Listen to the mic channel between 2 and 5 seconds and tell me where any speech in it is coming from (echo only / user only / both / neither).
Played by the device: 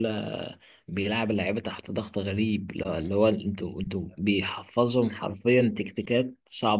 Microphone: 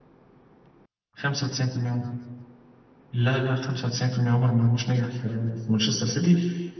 user only